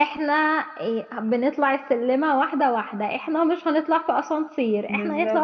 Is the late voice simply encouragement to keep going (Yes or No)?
Yes